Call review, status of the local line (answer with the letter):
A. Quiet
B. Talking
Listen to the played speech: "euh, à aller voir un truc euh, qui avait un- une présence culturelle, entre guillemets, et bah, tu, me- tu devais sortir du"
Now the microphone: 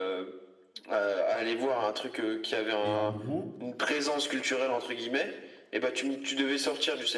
B